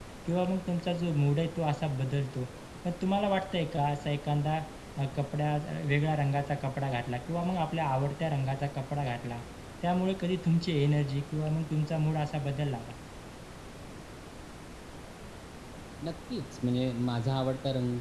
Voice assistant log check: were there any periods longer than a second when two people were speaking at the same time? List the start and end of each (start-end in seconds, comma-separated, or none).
none